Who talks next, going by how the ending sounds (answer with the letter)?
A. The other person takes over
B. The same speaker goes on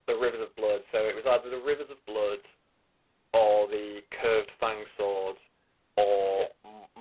B